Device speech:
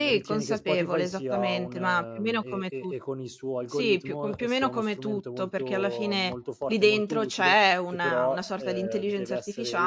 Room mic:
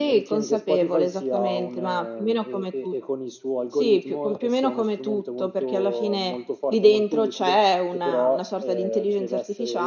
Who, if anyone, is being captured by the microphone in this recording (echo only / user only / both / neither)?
echo only